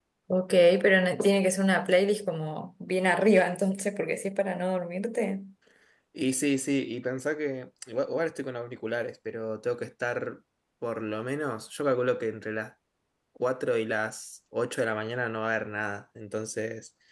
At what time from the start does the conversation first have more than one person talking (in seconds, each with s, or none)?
none